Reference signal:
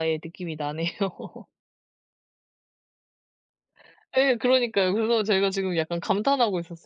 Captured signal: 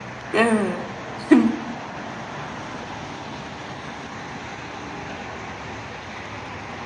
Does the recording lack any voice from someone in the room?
No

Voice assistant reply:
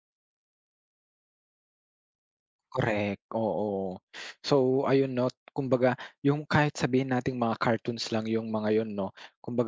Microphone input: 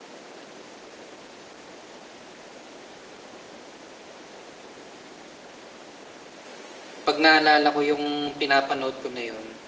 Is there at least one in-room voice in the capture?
Yes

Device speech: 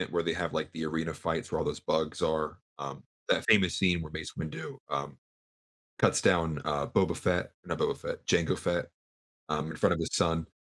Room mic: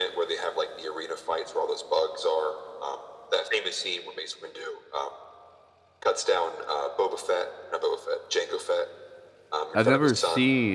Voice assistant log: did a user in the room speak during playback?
Yes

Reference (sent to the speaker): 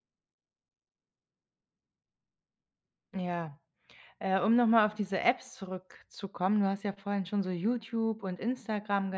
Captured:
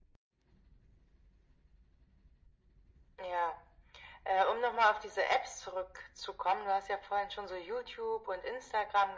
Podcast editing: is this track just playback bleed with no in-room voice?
Yes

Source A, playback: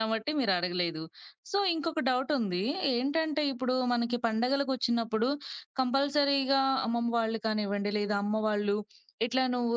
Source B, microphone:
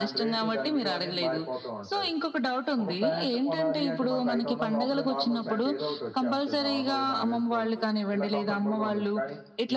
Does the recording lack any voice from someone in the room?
No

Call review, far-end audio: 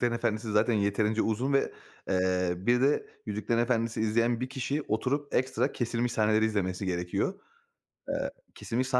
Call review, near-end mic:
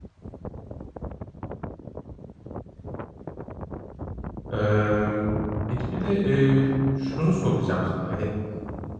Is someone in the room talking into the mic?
Yes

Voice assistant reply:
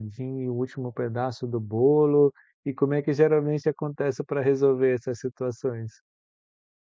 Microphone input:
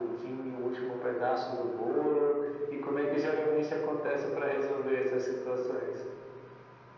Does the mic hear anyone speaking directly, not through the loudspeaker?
No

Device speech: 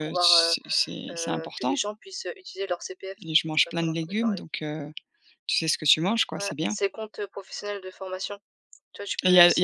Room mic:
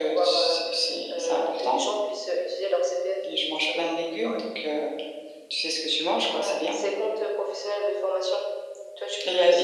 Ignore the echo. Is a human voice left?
No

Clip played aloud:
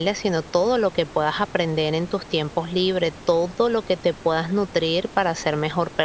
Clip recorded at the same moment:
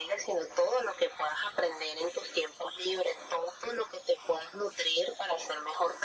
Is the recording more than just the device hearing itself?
No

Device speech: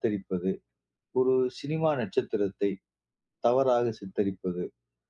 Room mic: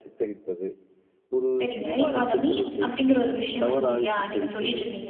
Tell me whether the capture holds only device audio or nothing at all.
No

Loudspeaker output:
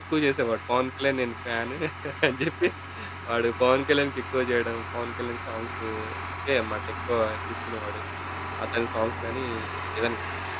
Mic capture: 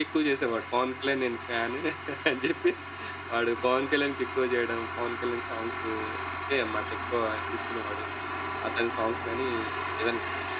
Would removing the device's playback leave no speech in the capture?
Yes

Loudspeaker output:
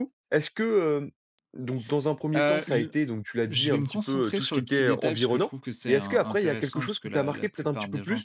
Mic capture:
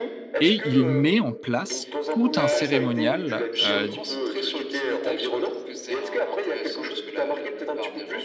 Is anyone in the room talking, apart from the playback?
Yes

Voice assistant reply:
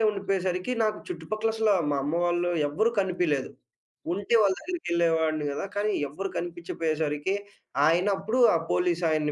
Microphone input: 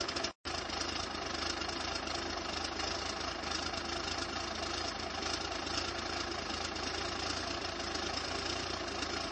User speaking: No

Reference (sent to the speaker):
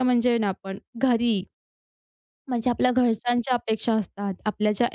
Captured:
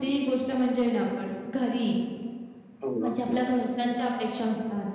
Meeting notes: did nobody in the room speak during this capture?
No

